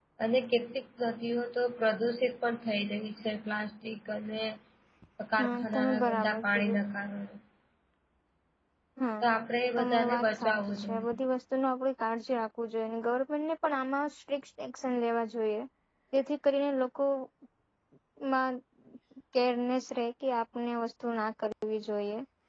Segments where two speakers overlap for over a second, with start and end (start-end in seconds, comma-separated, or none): 5.4-6.8, 9.8-11.2